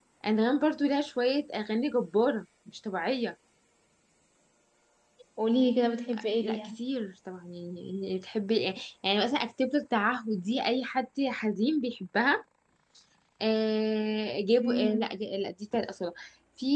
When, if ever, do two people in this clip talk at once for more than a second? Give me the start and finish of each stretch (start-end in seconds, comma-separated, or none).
none